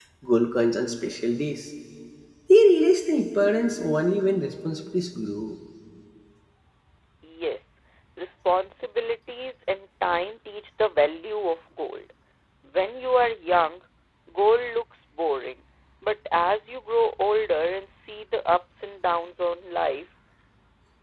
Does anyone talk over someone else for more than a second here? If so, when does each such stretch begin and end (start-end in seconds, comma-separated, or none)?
none